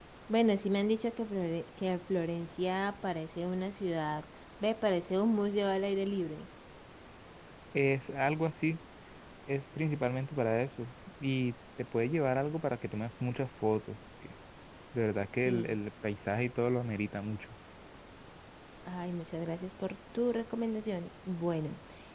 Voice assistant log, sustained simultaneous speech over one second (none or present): none